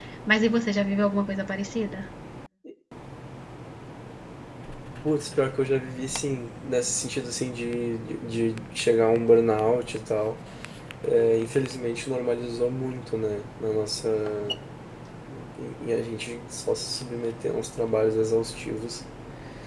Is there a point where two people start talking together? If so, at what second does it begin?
none

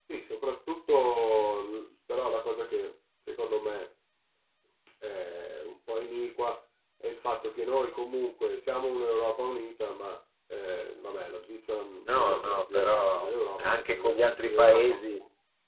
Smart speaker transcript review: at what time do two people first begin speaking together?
12.0 s

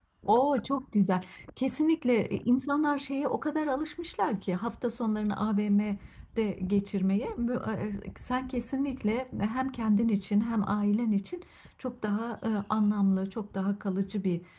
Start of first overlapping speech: none

